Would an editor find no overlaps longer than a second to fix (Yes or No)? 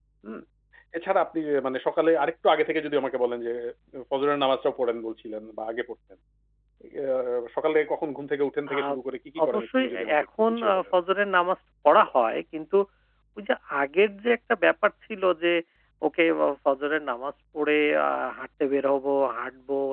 No